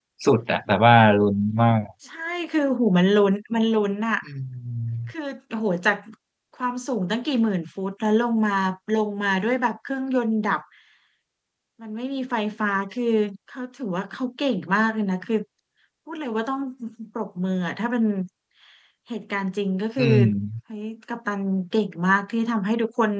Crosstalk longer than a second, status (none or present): none